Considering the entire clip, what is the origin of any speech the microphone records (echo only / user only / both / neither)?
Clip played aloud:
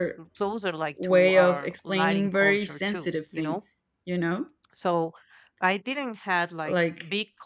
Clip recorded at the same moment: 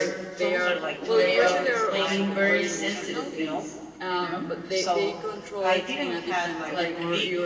both